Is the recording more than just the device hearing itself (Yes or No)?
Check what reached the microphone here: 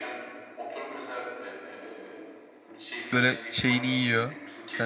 Yes